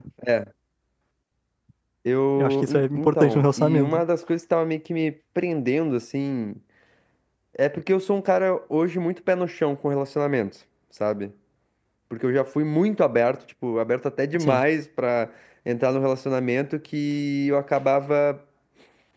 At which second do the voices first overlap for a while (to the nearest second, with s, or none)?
2 s